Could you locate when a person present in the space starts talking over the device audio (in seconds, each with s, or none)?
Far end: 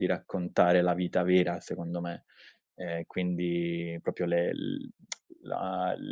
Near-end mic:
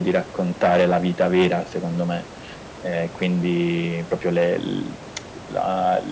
none